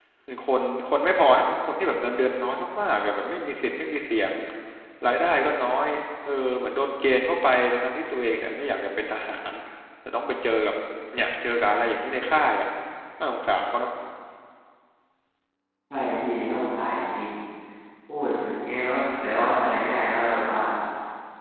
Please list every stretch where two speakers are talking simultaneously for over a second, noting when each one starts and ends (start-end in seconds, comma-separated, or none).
none